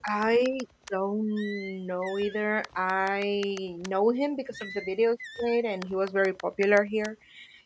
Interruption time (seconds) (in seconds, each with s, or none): none